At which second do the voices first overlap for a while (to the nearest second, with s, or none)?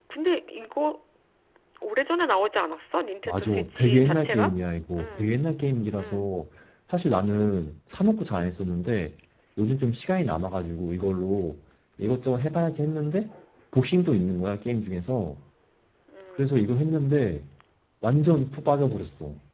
3 s